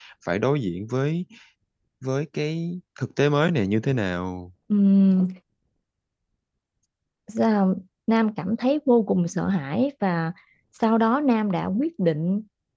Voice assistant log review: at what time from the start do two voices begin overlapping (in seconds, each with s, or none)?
none